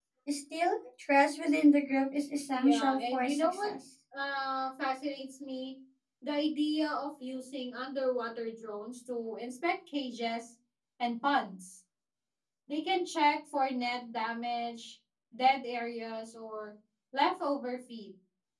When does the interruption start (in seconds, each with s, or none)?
2.5 s